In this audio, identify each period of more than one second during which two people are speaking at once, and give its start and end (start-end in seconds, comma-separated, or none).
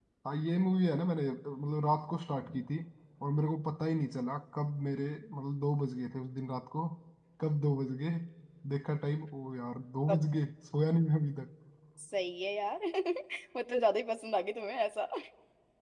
none